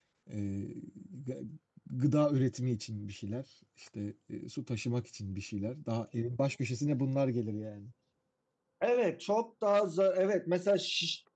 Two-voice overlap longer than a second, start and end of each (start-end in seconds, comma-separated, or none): none